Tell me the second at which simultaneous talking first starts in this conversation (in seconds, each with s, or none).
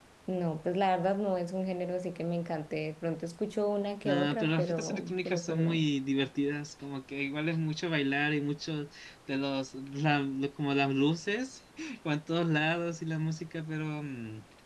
4.0 s